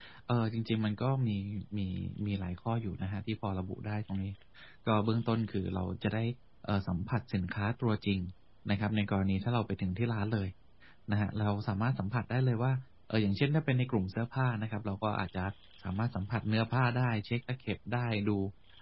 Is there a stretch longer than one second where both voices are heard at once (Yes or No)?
No